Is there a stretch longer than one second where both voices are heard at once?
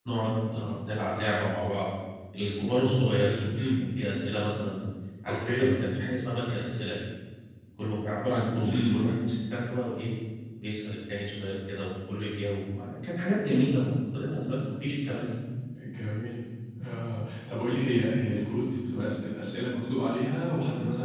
No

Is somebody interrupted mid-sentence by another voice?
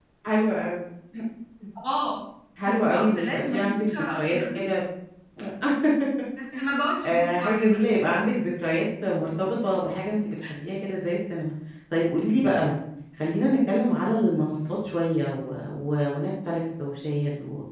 Yes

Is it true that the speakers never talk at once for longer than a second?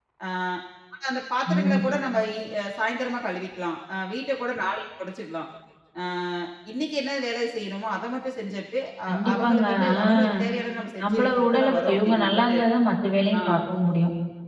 No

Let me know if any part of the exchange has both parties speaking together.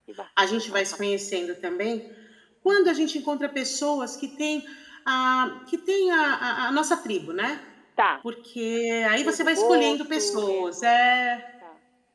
Yes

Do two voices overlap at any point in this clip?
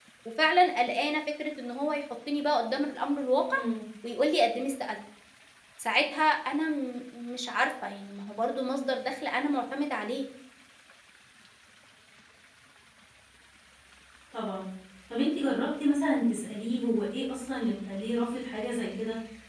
No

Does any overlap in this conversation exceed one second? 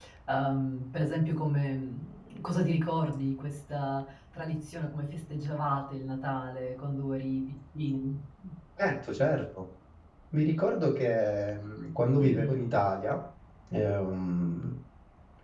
No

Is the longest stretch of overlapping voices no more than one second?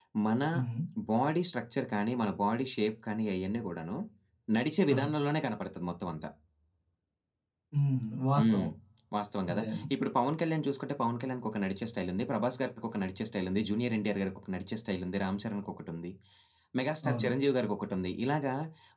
Yes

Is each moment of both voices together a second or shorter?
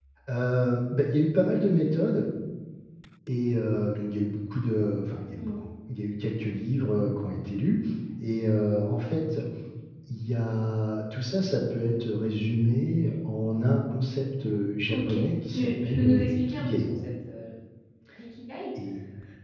No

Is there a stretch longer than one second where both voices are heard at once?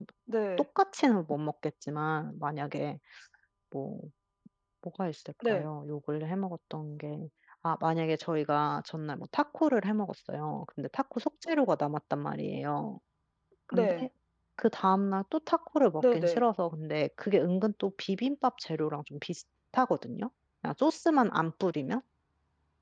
No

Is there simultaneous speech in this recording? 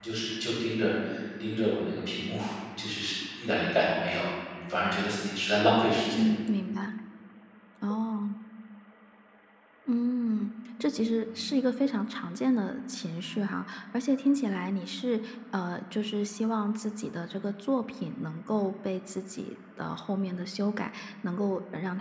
No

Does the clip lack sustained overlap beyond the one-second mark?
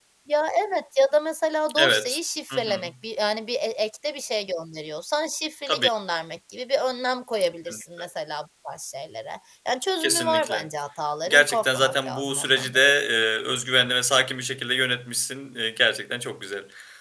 No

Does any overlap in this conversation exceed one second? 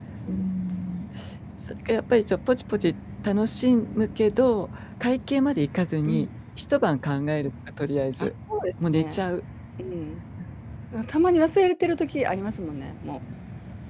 No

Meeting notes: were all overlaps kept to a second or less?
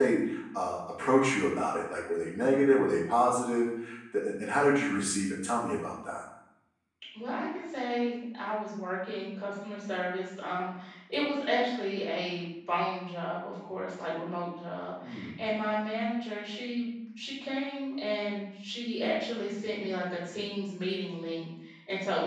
Yes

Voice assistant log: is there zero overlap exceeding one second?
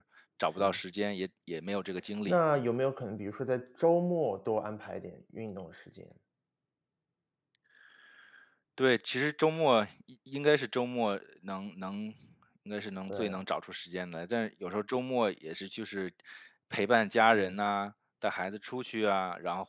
Yes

